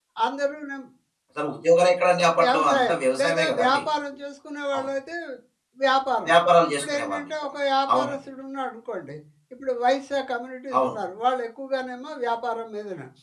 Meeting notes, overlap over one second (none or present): present